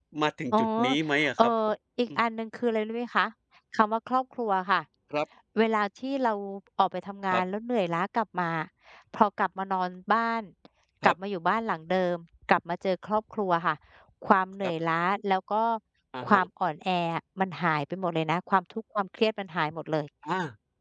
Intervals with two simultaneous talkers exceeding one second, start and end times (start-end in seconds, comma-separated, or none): none